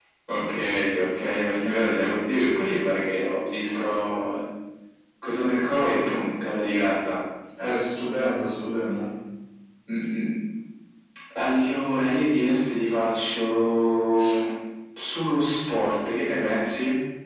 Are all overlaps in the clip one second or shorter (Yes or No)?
Yes